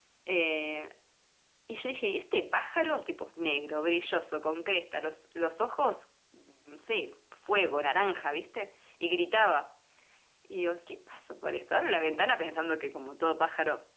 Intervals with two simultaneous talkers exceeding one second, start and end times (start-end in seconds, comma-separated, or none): none